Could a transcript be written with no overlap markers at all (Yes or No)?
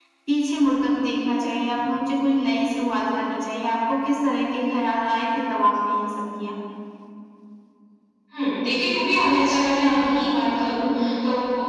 Yes